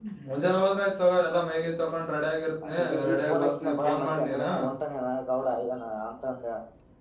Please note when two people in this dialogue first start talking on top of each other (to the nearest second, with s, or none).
3 s